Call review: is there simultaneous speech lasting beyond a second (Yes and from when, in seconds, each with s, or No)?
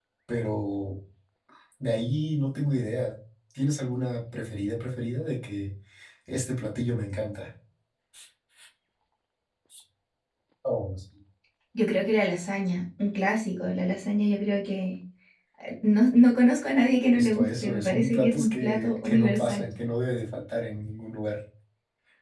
Yes, from 17.2 s